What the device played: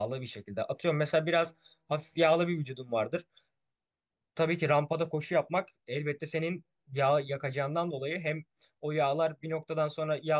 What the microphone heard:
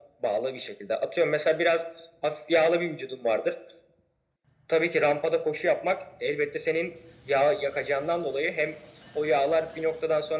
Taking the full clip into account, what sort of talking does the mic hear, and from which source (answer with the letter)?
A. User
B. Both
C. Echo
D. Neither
C